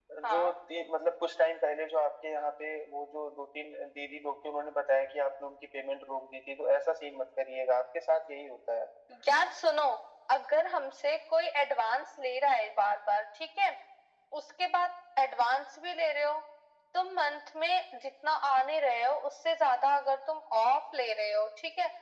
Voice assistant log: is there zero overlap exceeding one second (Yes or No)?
Yes